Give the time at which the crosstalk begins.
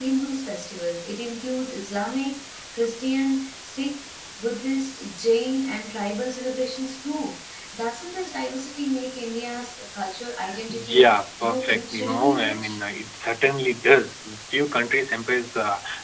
11 s

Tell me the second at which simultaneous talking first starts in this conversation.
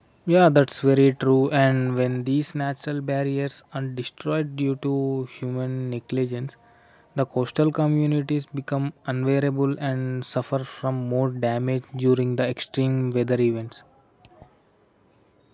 none

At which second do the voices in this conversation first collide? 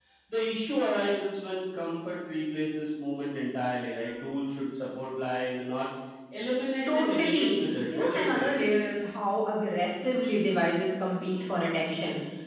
7 s

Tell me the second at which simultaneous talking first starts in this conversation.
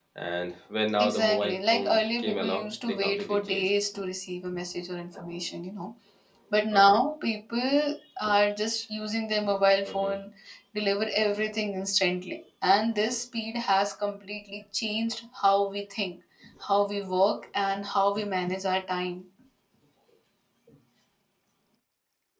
1 s

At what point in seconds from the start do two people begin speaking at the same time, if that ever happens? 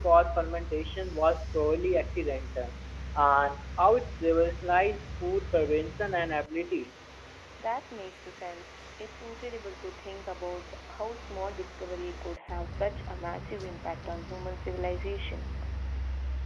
none

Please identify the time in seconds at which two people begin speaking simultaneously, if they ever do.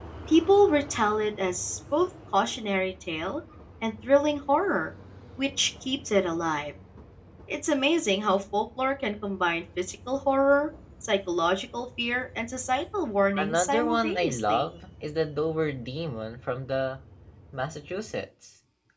13 s

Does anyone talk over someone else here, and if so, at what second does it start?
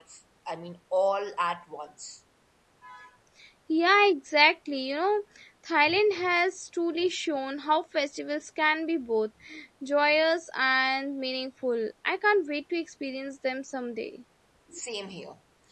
none

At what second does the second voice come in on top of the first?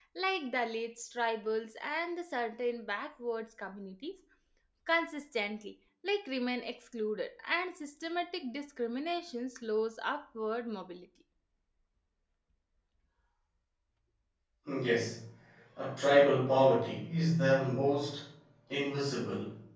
none

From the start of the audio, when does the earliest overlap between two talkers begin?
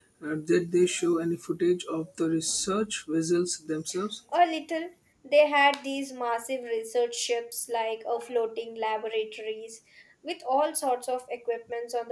none

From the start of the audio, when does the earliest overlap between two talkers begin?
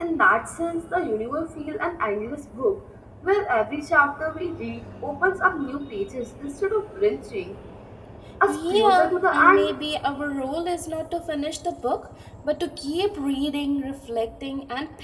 8 s

